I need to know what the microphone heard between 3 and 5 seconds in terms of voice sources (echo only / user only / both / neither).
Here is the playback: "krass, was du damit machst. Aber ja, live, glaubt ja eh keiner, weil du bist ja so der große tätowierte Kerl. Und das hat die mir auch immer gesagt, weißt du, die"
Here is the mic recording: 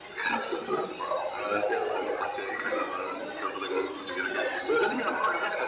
both